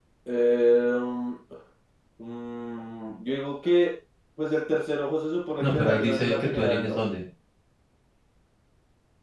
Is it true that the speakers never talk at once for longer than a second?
No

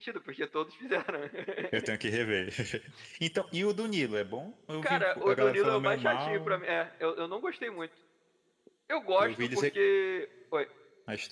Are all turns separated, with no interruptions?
No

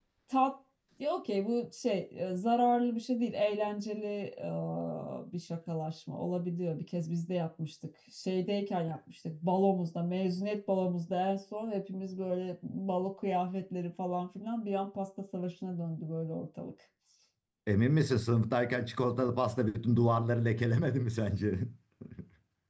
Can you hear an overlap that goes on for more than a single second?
No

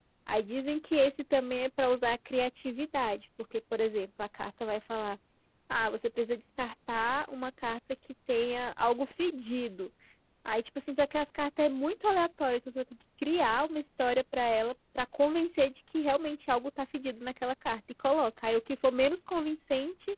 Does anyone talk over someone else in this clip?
No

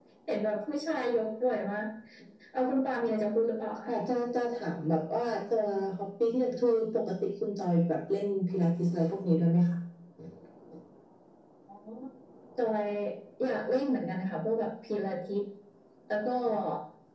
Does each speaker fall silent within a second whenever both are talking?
Yes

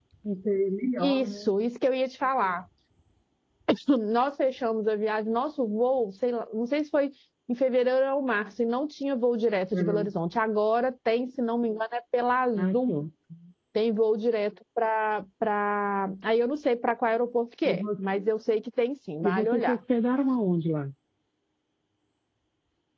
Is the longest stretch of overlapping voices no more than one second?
Yes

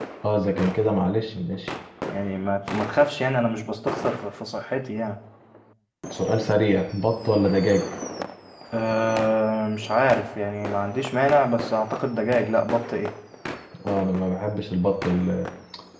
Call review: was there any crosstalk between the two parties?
No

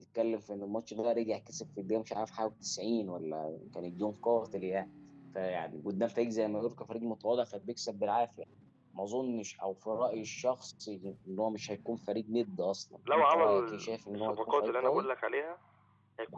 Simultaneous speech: Yes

